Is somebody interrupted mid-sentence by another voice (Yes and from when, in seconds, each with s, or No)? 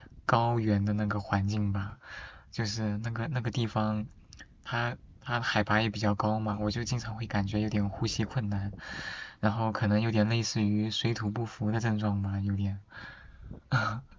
No